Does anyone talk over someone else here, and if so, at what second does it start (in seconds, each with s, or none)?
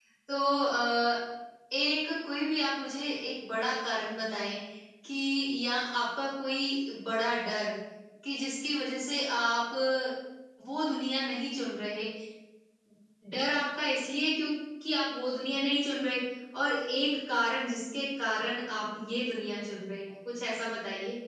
none